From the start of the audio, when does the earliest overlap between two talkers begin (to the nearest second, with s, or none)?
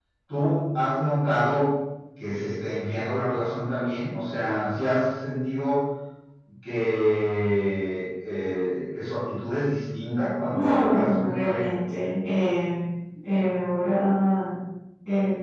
11 s